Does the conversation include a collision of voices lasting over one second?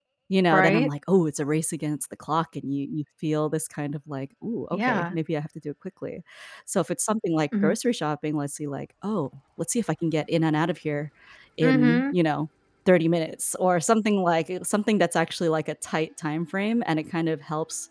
No

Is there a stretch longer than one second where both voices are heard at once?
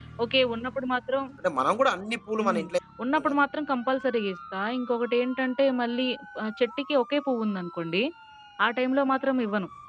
No

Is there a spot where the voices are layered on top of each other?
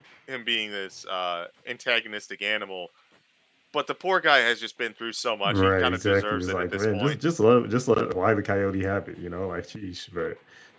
Yes, from 5.4 s

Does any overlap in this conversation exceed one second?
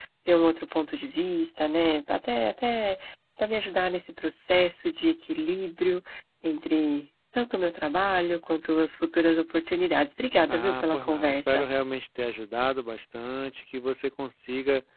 Yes, from 10.5 s

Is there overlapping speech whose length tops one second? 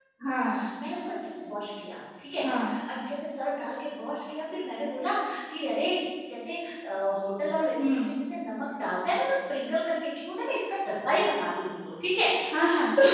No

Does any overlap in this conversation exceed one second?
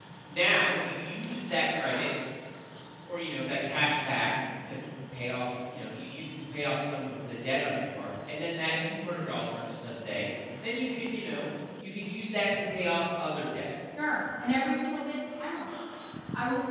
No

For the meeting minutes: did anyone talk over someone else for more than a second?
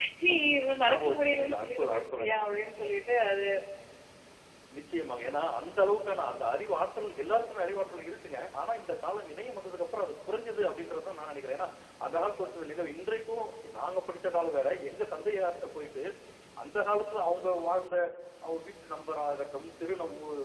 Yes, from 0.8 s

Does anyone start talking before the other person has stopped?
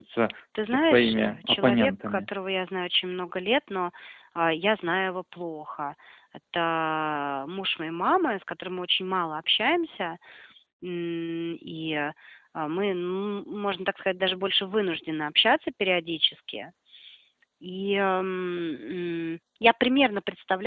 Yes, from 0.6 s

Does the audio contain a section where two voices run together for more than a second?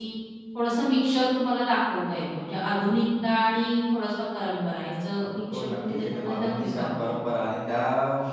Yes, from 5.5 s

